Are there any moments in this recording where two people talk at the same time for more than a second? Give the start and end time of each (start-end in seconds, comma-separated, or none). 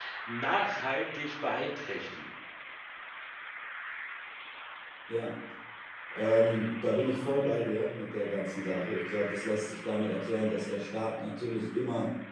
none